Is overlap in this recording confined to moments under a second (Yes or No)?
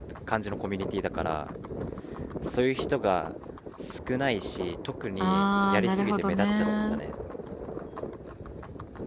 No